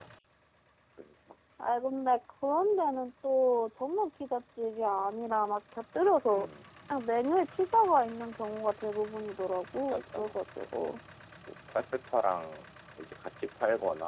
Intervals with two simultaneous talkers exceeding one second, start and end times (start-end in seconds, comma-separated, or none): none